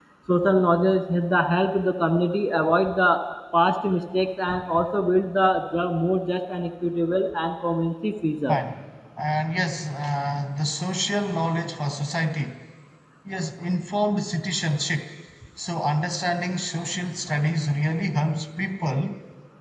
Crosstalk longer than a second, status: none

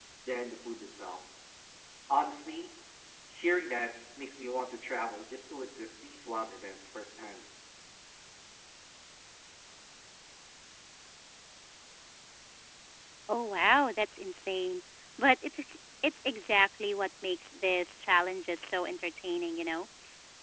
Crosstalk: none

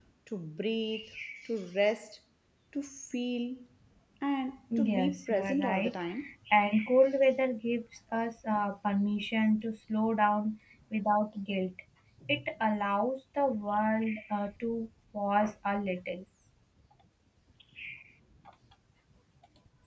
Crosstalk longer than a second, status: present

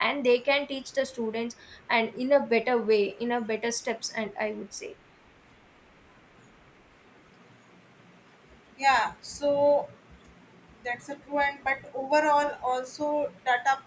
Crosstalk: none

